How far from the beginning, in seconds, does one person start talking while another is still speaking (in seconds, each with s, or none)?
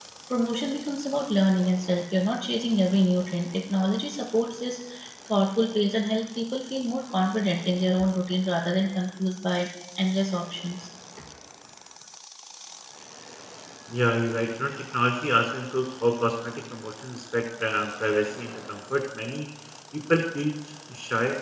none